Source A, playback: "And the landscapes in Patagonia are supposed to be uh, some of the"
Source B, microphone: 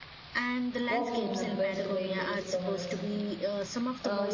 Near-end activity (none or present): present